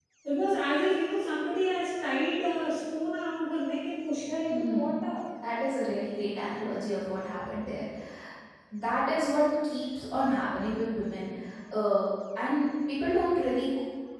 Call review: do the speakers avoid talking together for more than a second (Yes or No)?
Yes